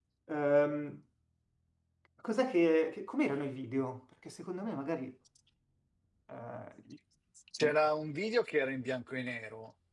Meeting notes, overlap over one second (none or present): none